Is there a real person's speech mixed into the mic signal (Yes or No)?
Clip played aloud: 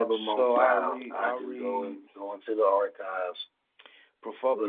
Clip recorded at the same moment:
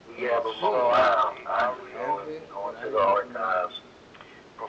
Yes